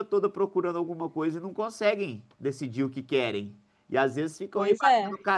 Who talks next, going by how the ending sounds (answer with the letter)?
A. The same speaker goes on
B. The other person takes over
A